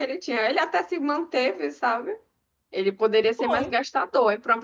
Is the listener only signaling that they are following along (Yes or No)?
Yes